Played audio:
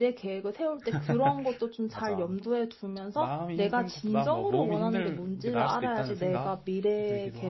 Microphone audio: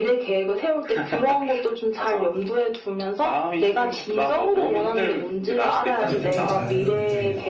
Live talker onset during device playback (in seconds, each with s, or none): 5.9 s